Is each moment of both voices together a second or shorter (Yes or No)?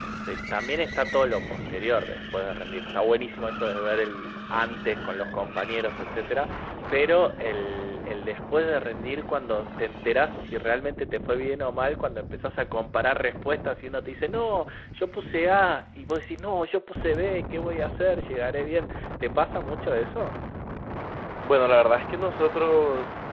Yes